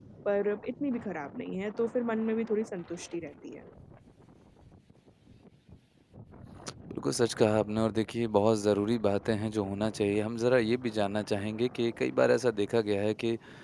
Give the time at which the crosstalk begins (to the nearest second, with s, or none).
none